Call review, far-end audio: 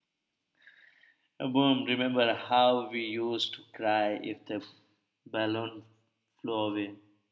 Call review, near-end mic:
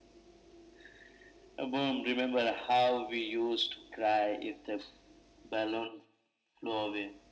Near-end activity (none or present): none